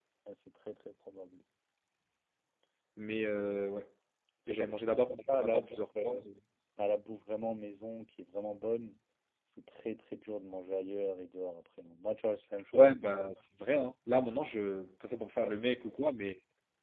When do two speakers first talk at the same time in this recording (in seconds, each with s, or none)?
4.5 s